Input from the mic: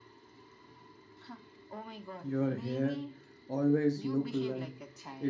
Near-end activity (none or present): present